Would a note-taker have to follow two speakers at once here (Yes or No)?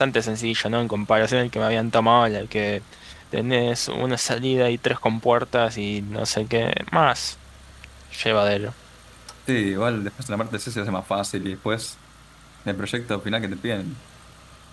No